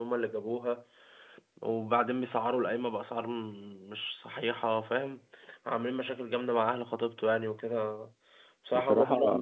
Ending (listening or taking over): listening